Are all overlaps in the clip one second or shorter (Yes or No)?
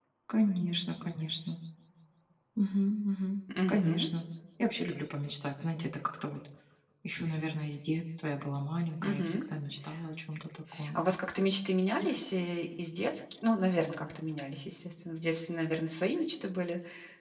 Yes